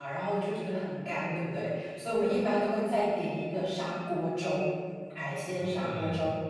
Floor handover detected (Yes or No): Yes